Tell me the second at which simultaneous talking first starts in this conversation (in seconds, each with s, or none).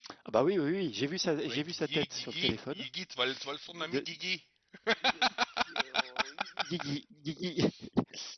1.4 s